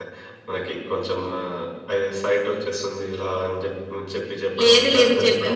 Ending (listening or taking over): taking over